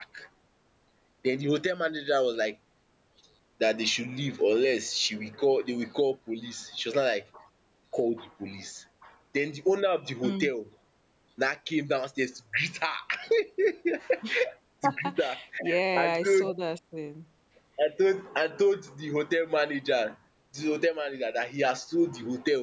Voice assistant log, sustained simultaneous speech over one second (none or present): none